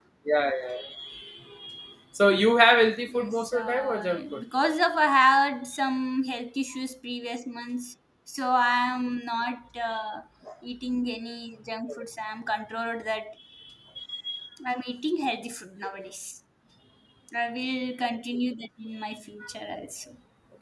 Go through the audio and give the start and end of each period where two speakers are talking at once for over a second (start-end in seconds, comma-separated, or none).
3.1-4.4